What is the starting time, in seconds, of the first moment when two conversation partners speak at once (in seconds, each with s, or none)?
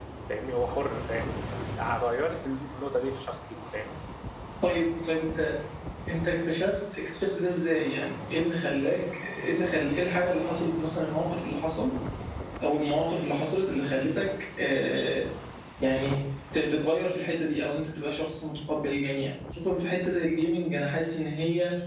none